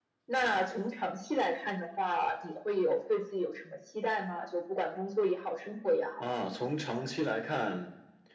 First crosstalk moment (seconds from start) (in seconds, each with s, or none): none